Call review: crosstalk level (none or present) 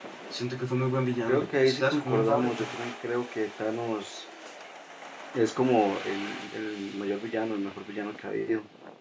present